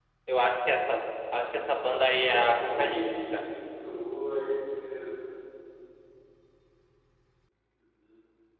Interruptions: present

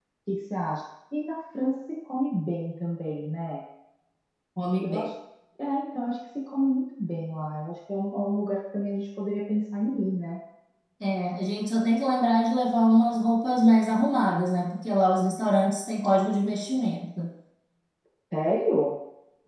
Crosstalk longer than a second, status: none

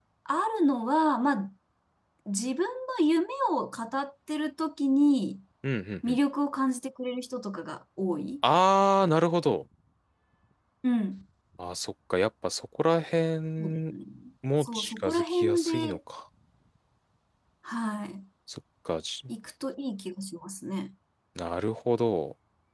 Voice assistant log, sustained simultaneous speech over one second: present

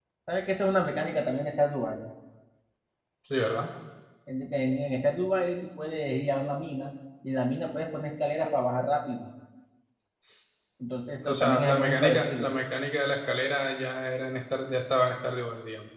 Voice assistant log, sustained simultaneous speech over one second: present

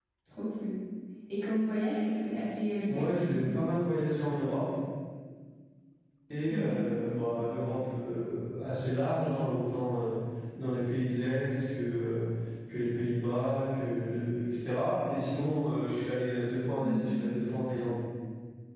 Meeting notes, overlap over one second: none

